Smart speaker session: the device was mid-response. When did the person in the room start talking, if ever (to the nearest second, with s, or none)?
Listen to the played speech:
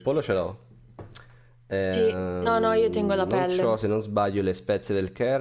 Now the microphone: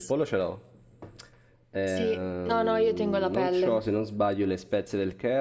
none